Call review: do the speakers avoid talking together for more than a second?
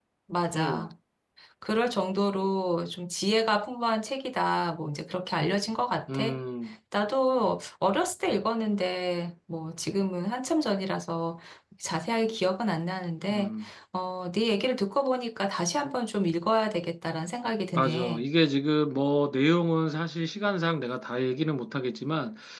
Yes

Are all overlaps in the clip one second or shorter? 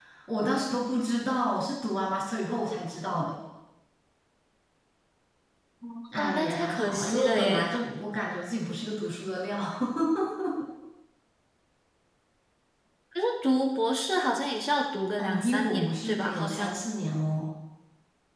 No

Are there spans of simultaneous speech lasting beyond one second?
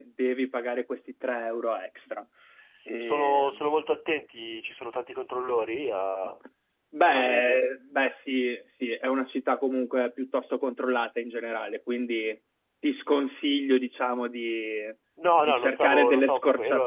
Yes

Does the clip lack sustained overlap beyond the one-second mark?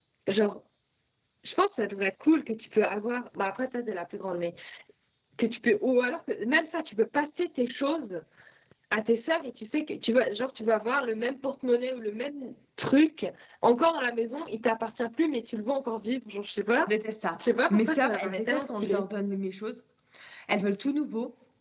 No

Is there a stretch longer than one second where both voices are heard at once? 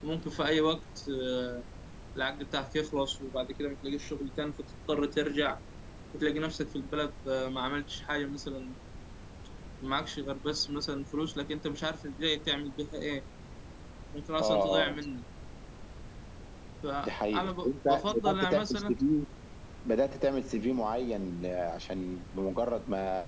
Yes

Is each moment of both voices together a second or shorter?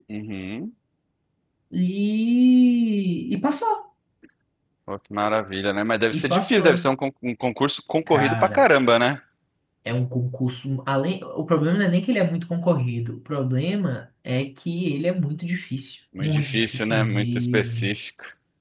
No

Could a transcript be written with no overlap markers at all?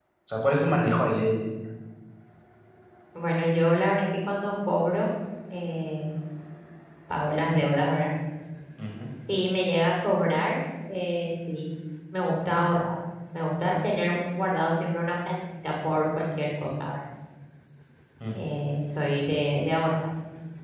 Yes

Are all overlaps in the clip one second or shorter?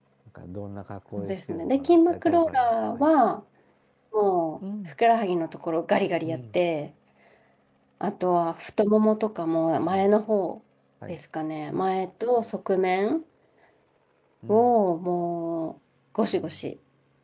No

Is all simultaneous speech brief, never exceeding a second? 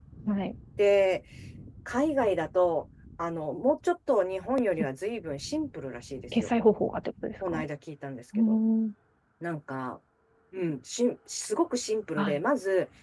Yes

